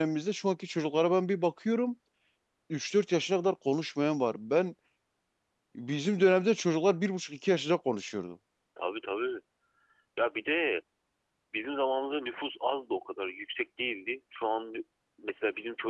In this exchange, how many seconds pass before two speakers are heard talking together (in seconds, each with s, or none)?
none